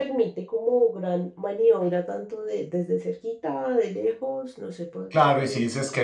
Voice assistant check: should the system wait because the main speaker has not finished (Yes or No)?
No